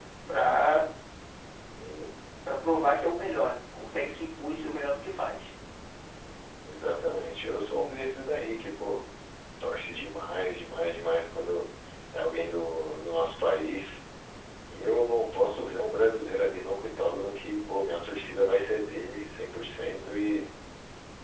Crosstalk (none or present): none